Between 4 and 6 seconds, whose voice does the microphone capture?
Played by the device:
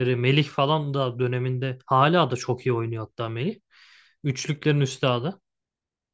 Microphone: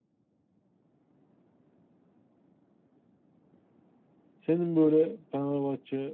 user only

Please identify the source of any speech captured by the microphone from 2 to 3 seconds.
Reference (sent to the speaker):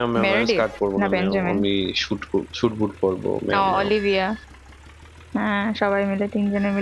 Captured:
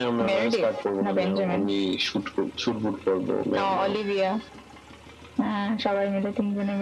echo only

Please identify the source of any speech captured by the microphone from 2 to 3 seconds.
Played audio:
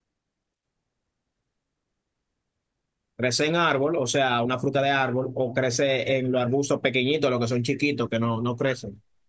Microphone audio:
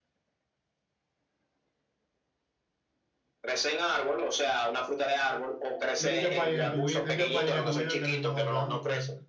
neither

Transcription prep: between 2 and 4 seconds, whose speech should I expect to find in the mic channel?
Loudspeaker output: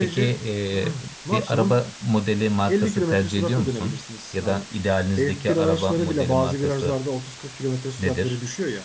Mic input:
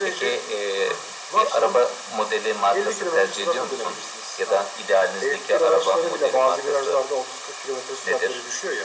echo only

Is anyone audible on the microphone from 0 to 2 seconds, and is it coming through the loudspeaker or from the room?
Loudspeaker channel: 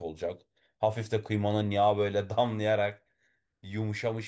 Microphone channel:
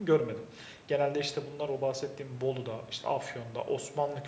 user only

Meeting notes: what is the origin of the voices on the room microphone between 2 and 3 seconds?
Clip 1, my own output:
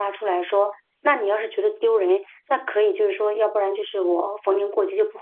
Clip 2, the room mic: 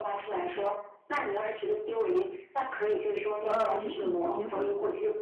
echo only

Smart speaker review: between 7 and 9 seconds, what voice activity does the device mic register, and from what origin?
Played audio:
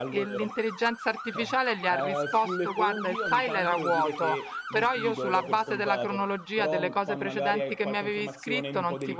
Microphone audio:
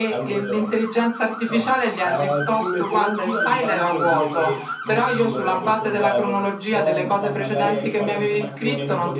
both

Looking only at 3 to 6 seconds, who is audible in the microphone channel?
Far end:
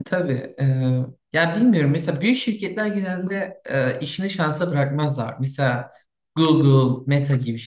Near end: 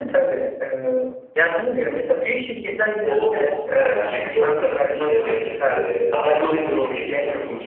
both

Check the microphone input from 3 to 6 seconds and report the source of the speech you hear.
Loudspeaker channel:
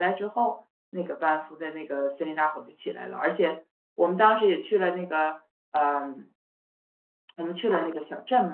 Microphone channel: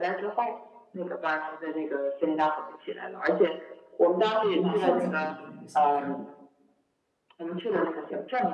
both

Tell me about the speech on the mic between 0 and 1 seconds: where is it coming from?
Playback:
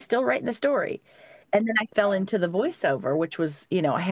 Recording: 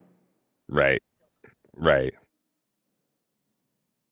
user only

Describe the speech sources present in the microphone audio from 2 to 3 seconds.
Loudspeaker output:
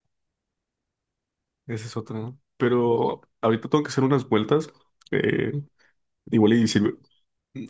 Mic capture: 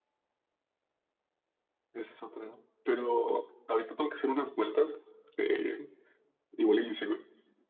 echo only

